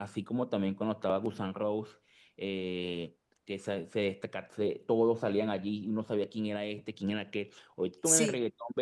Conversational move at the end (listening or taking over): listening